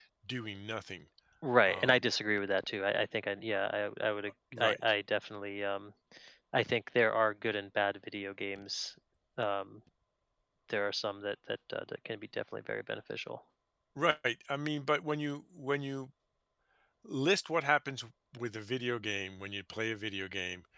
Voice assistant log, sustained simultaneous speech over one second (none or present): none